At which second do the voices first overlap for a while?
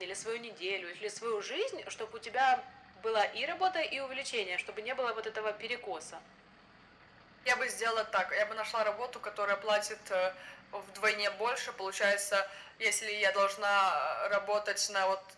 none

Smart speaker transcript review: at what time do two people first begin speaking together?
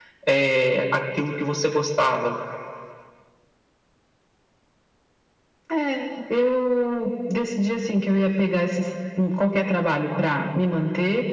none

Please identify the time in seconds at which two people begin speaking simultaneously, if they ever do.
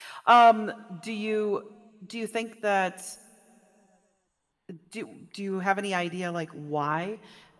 none

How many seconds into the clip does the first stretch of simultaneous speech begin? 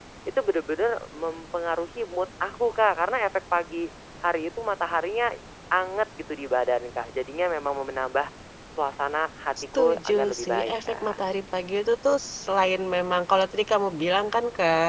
10 s

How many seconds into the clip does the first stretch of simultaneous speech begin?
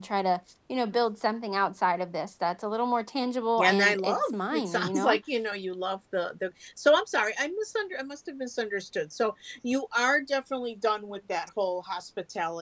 4 s

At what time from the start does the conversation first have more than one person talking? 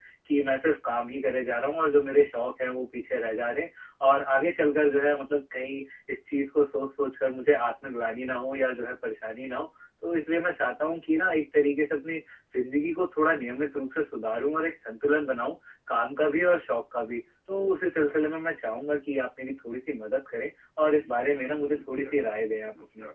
21 s

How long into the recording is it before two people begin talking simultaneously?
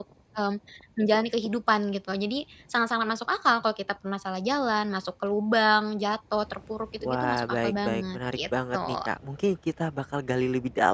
7 s

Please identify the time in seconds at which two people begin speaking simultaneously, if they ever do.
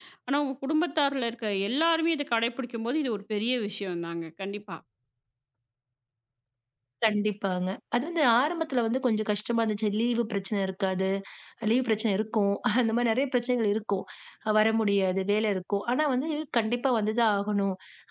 none

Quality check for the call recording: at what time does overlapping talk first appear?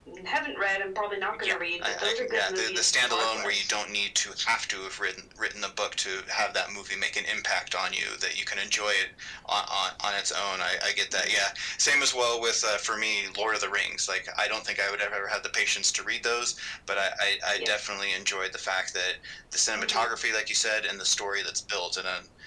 1 s

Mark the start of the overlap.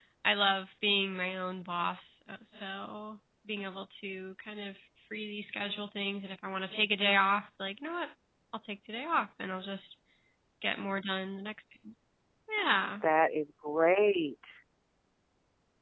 none

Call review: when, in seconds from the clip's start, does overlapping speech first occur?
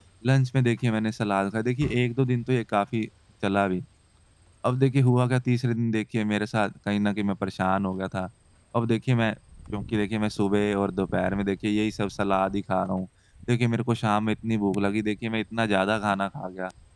none

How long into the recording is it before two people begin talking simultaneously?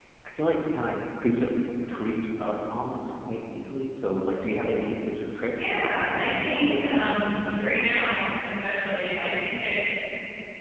6 s

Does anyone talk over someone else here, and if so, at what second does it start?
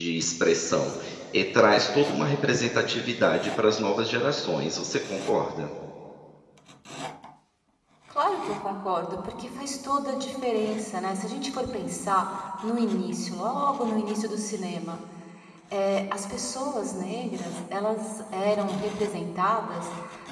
none

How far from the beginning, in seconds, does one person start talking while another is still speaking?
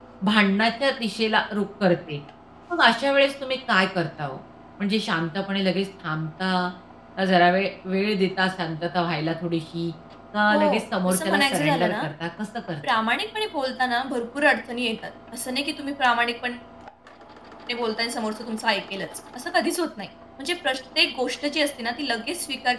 11 s

